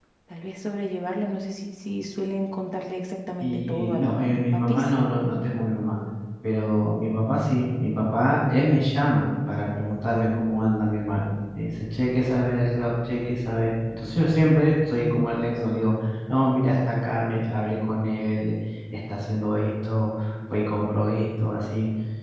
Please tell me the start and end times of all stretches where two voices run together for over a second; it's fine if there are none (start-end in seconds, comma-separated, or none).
3.4-4.9